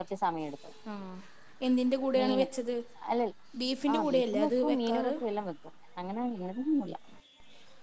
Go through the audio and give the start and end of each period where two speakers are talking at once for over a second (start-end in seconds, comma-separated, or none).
3.9-5.1